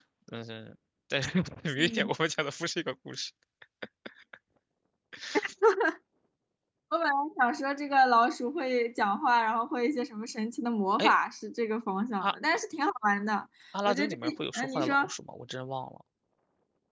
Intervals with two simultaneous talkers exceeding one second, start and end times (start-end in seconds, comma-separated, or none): 13.9-15.1